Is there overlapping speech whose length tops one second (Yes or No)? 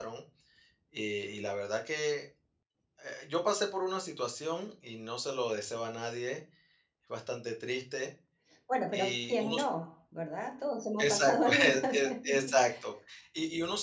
Yes